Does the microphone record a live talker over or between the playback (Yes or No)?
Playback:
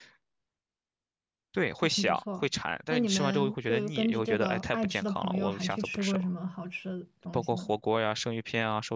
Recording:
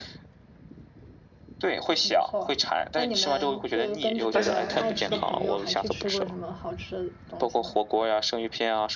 Yes